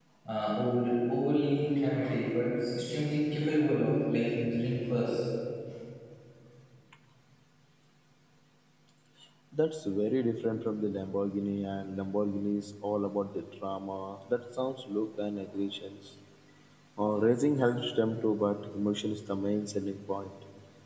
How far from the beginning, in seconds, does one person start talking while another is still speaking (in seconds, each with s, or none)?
none